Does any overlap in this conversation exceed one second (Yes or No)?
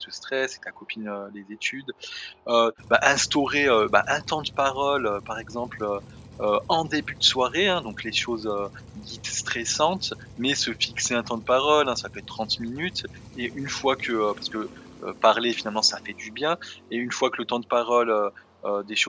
No